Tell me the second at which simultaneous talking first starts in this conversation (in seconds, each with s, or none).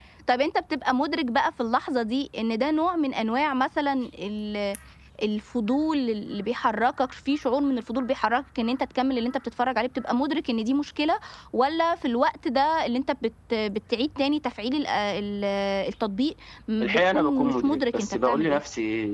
16.8 s